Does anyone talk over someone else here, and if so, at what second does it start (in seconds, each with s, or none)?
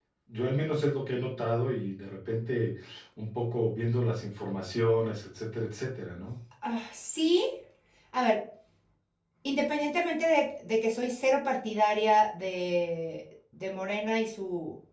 none